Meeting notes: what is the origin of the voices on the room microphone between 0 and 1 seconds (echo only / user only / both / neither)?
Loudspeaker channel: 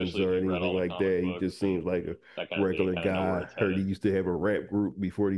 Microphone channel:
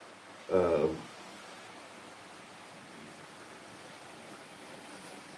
user only